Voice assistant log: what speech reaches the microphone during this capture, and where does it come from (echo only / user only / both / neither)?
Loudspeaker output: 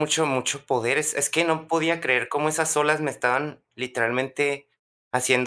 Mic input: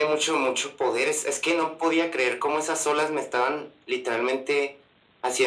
echo only